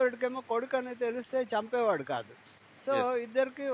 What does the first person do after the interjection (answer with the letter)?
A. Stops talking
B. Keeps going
B